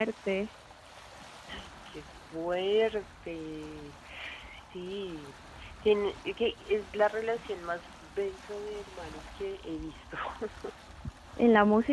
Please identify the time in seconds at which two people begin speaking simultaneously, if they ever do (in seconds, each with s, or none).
none